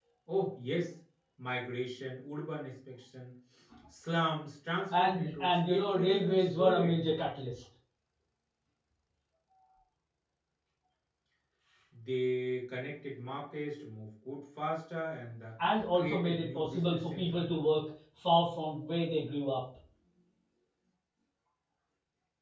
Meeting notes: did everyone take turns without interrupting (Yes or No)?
No